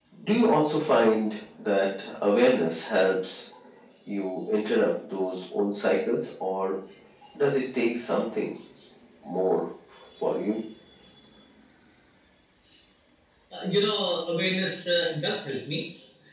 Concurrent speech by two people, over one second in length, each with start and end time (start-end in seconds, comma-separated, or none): none